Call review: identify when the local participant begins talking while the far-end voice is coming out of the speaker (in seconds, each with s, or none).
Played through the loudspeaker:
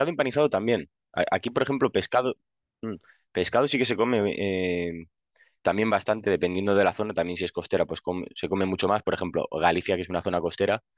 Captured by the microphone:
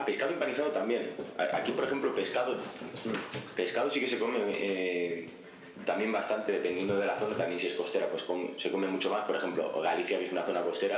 none